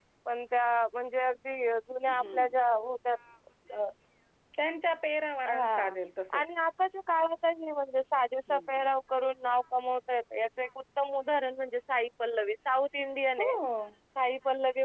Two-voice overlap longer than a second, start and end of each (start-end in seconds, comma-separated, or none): none